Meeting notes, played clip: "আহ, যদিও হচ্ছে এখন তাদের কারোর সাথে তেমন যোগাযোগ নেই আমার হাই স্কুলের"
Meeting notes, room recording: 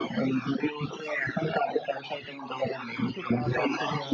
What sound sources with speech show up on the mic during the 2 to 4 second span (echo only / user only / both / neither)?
both